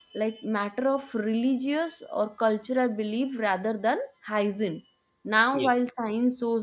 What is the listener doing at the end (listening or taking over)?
listening